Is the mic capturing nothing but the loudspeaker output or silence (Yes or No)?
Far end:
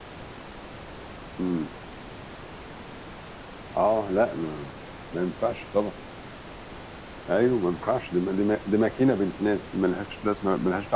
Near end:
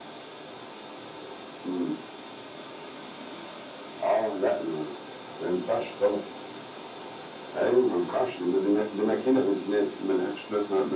Yes